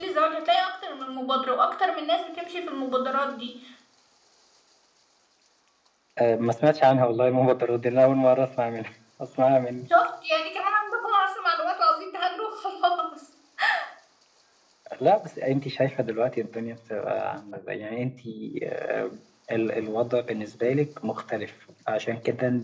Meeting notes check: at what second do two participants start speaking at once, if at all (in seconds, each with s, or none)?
none